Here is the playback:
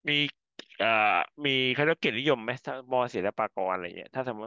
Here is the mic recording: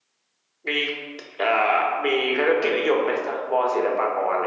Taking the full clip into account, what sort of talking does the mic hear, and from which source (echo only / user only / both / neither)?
echo only